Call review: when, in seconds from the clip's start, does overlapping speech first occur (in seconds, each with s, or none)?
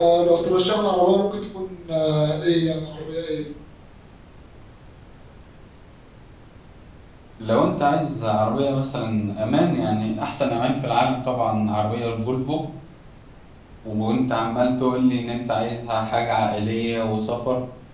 none